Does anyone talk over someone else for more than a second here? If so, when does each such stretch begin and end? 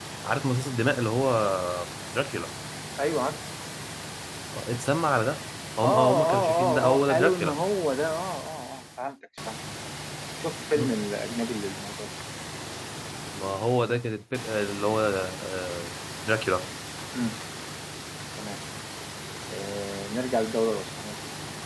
5.8-7.5

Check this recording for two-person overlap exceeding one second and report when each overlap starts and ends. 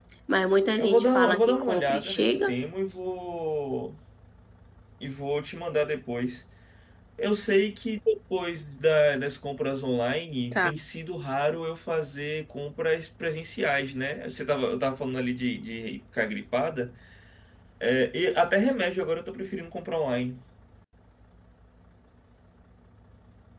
0.8-2.5

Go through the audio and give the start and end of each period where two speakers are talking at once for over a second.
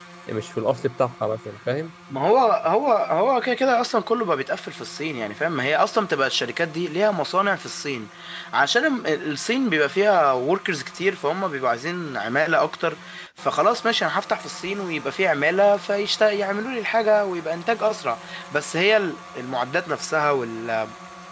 none

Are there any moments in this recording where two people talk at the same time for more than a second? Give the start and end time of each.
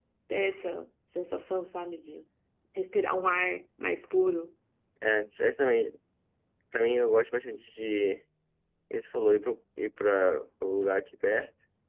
none

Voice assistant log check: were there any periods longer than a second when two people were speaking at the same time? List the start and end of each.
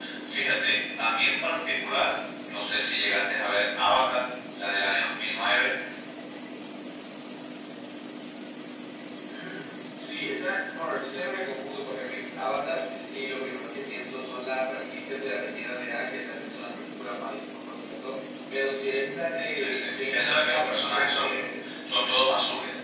19.6-21.7

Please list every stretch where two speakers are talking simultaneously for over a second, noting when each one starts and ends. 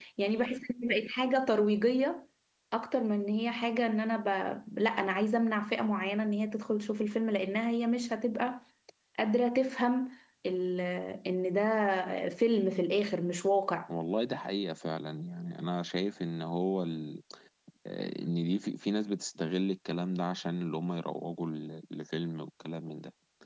none

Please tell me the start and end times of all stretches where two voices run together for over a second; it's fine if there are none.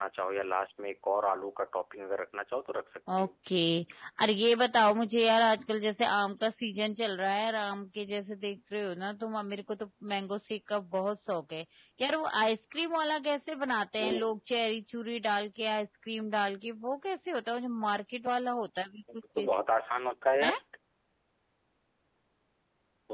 none

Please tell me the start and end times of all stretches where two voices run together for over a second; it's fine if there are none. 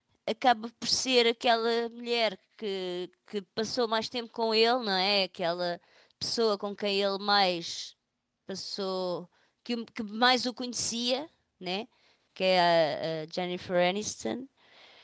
none

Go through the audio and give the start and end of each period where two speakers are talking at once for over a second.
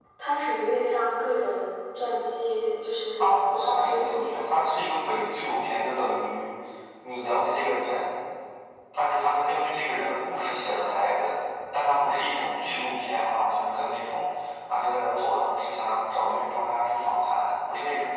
3.2-4.6

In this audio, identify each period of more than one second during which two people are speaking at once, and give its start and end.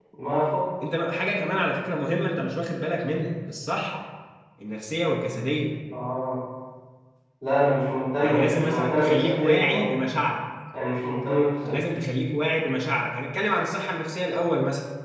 8.2-9.9

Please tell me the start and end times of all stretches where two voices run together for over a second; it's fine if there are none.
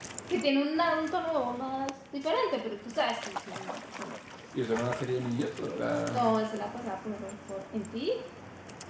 none

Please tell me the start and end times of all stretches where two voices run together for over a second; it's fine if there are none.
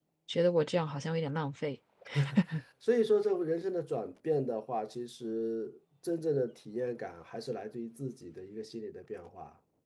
none

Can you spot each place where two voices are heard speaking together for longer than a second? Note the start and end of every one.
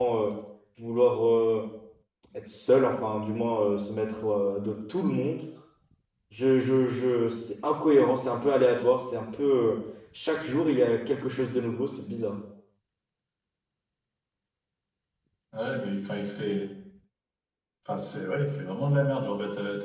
none

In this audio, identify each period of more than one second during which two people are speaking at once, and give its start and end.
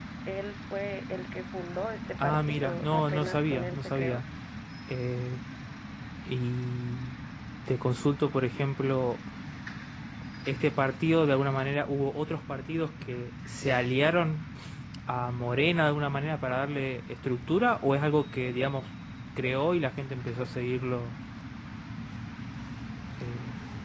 2.2-4.2

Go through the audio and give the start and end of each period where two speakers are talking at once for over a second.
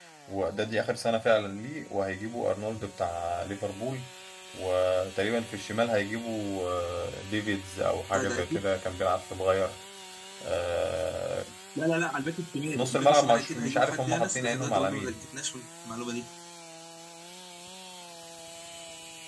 12.6-15.2

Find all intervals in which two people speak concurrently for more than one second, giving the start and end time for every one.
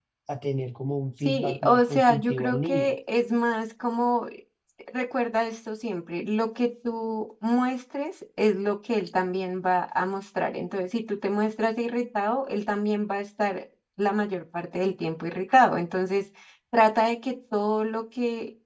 1.2-2.9

